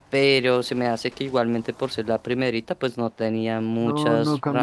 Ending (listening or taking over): taking over